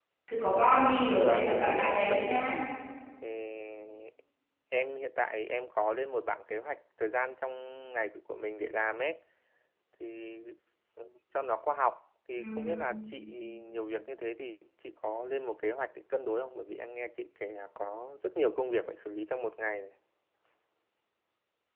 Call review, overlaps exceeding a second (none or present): present